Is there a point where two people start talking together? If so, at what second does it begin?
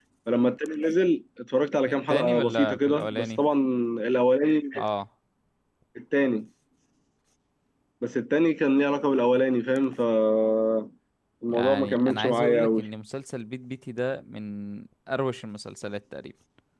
2.1 s

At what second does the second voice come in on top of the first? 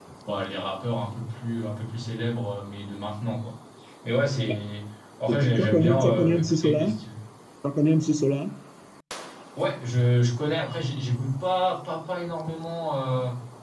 5.5 s

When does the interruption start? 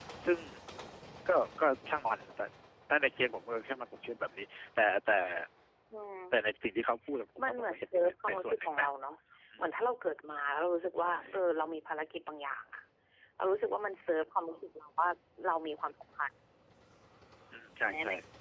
7.4 s

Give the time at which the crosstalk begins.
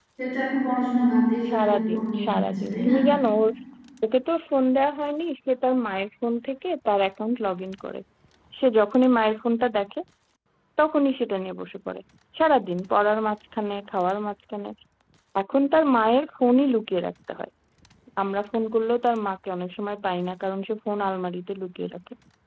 1.5 s

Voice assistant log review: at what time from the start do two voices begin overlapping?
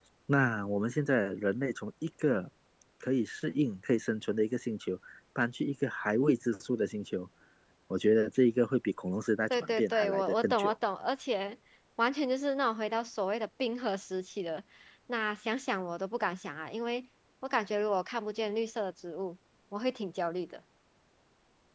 9.5 s

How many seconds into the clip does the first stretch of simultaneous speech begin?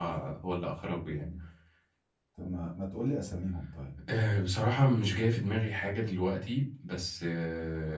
none

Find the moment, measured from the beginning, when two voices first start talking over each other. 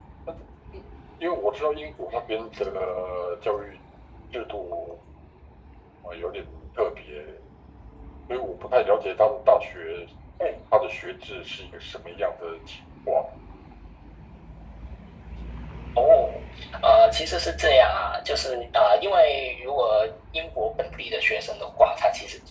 none

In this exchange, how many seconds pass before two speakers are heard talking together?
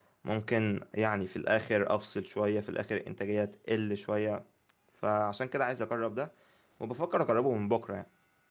none

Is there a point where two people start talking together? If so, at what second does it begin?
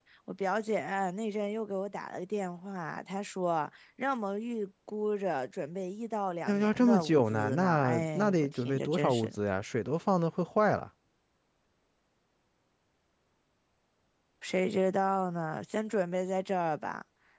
6.5 s

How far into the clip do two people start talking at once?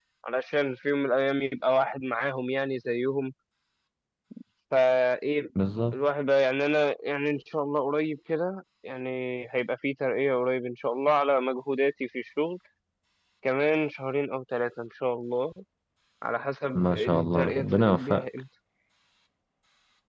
16.7 s

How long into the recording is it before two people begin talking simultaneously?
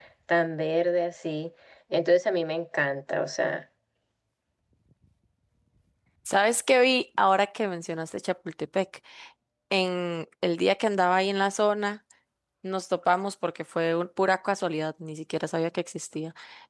none

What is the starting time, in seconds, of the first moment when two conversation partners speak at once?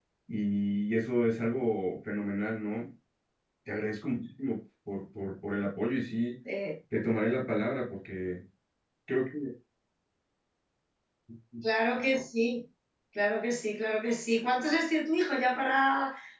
none

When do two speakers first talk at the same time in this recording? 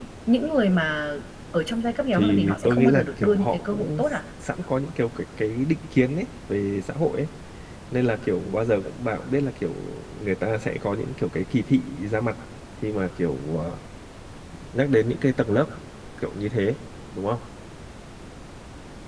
2.1 s

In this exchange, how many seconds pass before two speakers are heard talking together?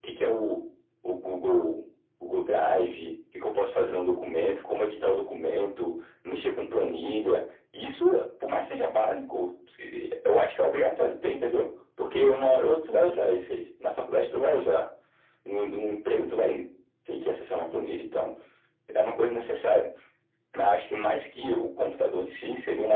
none

